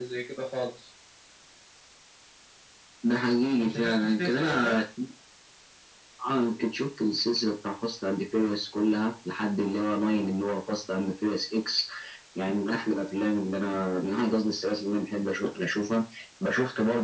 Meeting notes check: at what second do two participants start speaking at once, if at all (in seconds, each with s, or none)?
3.6 s